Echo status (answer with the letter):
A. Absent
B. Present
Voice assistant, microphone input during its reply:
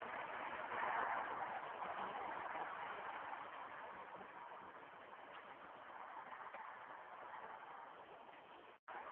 A